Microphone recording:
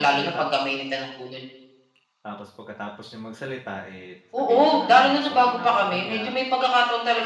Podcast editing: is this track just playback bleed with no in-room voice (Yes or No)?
No